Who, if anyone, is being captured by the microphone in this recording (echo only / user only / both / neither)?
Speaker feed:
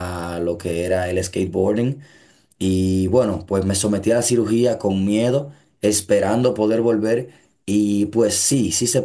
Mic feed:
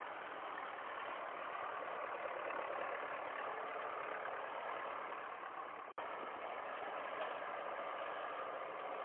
neither